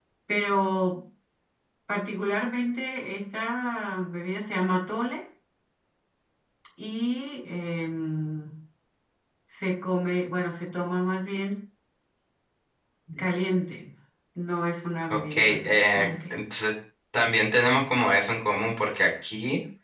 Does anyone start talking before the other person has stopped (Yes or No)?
Yes